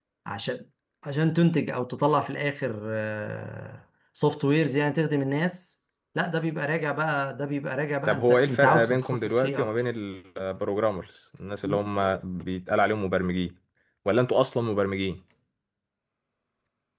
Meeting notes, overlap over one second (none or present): present